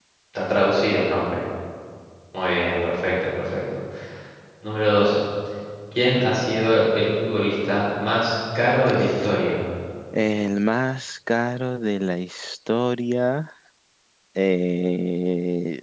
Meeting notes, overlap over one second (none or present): none